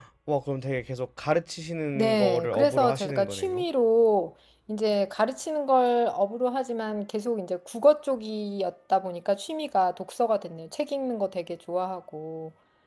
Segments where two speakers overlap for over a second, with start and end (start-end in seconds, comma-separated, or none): 1.9-3.6